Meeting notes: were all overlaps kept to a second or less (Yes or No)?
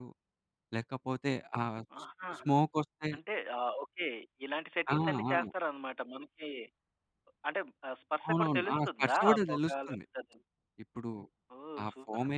No